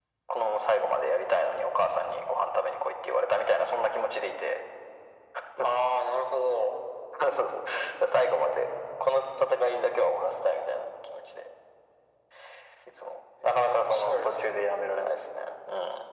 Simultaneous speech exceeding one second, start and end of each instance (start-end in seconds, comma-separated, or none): 13.4-14.6